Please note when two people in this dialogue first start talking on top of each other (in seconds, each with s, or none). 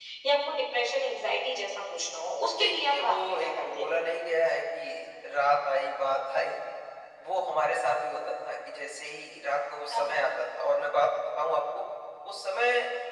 2.6 s